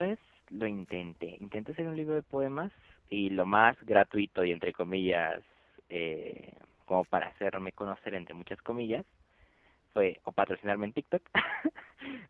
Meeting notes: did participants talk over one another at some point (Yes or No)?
No